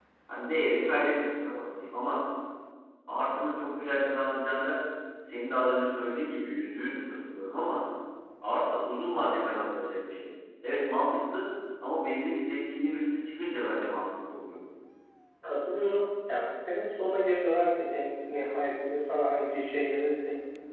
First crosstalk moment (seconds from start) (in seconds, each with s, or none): none